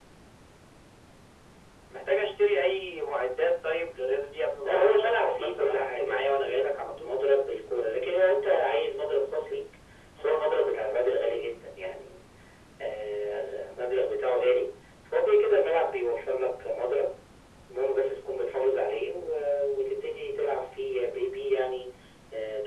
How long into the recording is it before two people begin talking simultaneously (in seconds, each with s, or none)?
4.6 s